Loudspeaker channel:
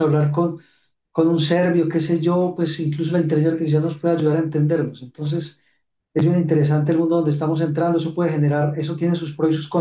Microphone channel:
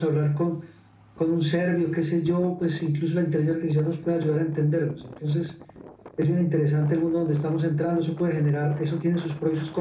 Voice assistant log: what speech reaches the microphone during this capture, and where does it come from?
echo only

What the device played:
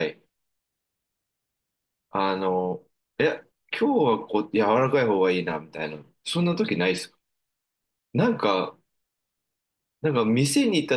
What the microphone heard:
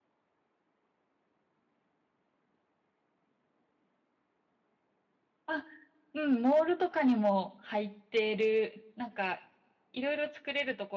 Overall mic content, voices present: user only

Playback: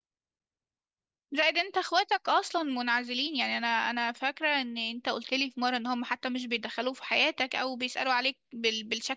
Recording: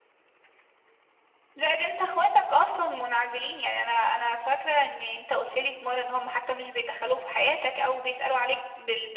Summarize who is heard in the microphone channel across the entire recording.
echo only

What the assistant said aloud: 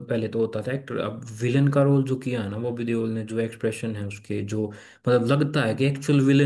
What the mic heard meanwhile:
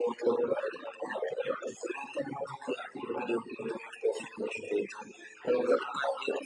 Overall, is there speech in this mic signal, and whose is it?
echo only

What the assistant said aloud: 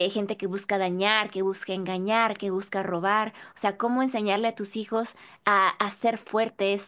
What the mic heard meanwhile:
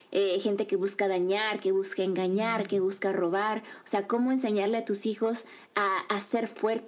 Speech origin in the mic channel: both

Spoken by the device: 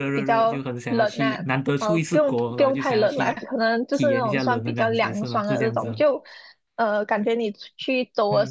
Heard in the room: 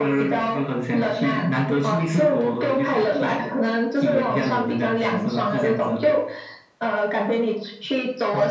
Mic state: echo only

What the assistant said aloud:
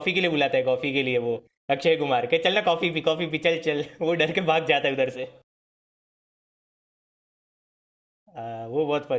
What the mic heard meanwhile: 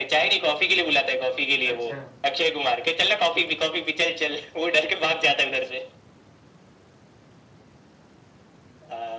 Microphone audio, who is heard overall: both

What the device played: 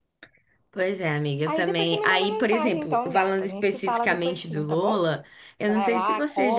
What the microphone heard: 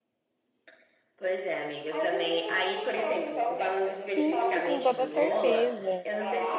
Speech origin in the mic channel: both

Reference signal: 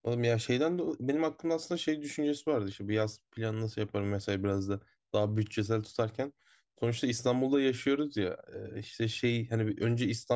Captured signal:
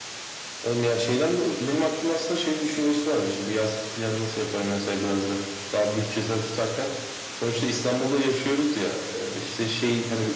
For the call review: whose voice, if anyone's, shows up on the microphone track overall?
echo only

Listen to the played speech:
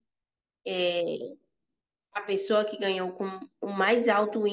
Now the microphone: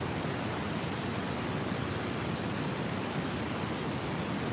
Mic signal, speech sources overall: neither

